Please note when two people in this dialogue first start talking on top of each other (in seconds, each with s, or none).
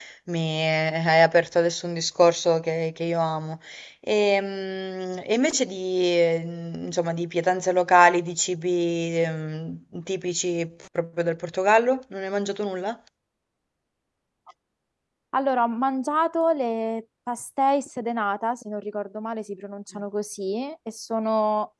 none